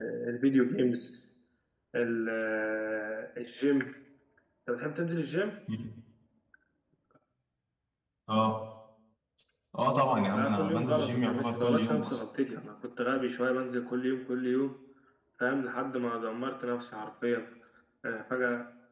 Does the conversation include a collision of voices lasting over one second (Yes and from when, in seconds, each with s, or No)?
Yes, from 10.3 s